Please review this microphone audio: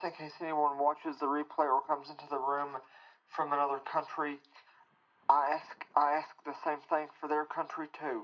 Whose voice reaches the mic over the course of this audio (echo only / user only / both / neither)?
echo only